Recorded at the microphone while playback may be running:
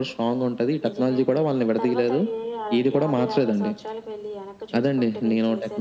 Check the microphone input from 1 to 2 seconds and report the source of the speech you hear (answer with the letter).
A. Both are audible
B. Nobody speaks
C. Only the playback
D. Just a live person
A